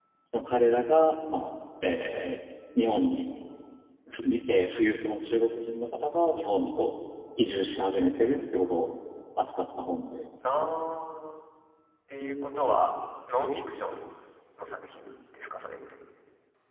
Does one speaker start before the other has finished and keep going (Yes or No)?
No